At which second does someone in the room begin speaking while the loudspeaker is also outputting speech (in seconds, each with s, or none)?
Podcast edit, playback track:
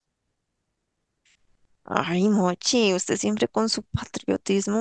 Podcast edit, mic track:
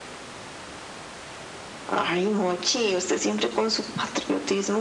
none